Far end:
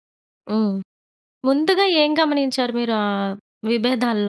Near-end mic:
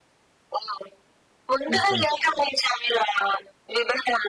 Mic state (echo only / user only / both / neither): both